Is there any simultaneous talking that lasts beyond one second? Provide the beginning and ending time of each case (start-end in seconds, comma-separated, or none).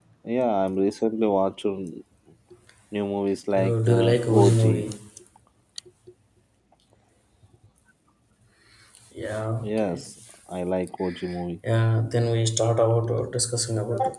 3.6-4.8